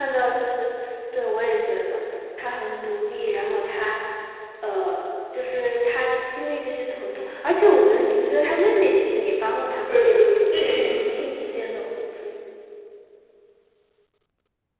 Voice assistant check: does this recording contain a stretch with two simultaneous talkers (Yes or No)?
Yes